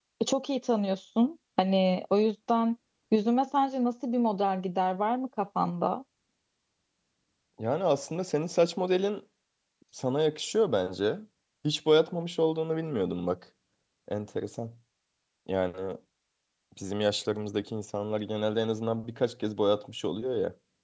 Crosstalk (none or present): none